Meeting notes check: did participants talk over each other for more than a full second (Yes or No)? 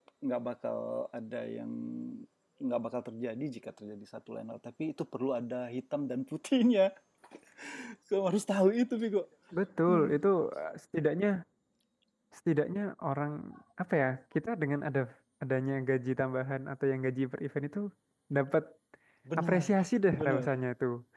No